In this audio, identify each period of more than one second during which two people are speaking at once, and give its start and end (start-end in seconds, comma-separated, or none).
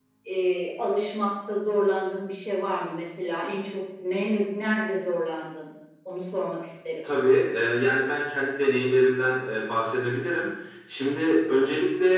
none